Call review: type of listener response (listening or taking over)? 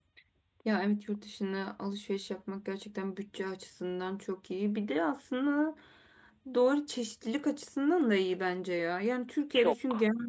listening